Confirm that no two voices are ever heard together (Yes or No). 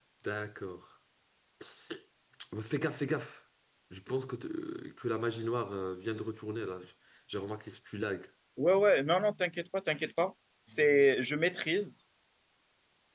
Yes